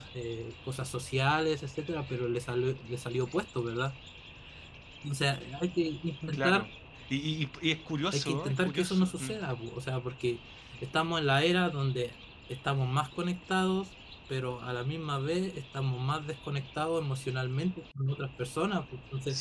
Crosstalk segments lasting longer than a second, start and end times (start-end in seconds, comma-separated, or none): 8.1-9.3